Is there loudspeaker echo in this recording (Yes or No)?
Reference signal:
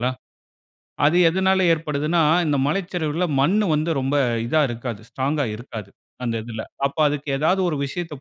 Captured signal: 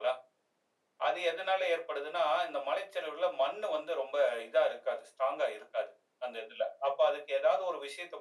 Yes